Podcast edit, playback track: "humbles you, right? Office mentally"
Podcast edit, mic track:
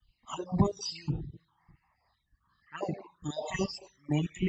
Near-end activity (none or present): none